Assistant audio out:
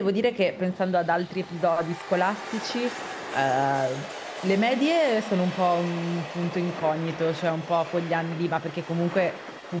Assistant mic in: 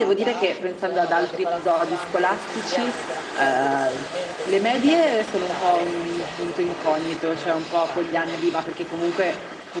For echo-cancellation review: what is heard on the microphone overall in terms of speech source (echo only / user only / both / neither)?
both